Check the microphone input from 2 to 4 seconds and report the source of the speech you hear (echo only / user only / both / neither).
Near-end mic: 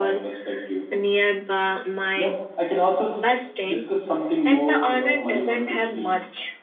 both